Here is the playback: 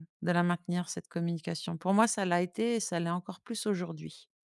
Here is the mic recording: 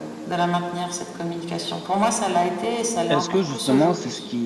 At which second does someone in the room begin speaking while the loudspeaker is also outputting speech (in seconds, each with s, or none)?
3.1 s